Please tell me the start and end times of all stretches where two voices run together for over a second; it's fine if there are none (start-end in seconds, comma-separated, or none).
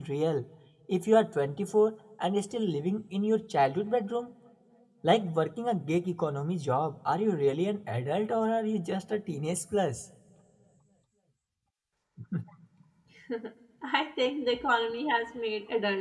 none